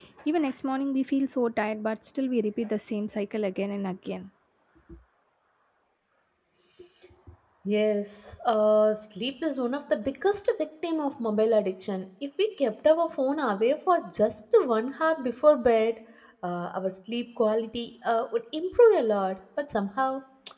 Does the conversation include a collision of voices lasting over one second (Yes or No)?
No